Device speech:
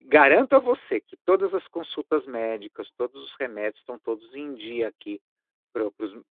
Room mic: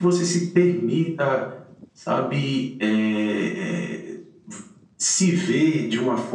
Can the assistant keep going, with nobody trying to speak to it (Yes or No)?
No